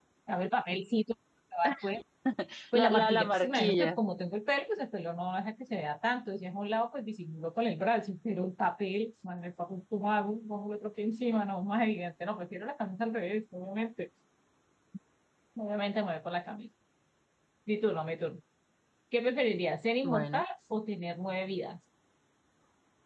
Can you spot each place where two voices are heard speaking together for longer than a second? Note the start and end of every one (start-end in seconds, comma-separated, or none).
2.7-4.0